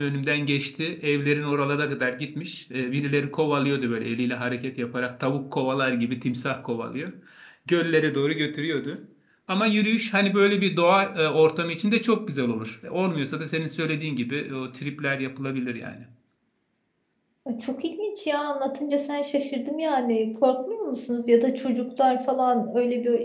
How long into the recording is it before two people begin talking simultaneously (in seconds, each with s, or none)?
none